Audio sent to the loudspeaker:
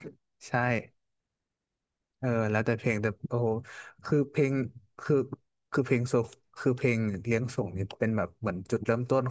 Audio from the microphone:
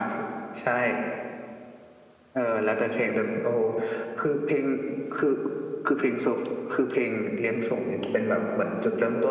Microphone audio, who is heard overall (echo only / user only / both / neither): echo only